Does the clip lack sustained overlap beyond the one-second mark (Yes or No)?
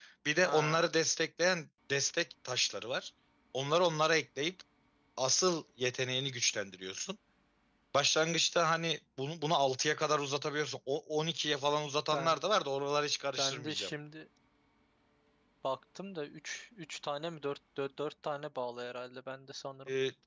Yes